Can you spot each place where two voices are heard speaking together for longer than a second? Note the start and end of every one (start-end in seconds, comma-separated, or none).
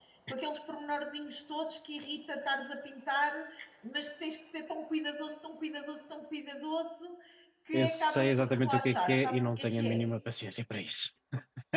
7.7-10.0